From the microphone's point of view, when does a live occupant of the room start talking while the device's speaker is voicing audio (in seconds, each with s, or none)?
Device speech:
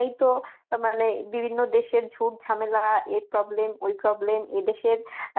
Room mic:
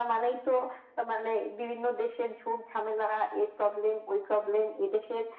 none